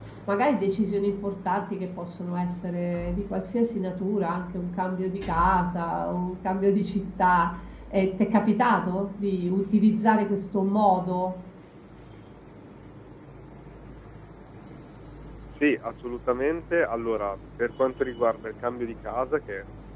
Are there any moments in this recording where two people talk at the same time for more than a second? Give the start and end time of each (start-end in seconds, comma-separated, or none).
none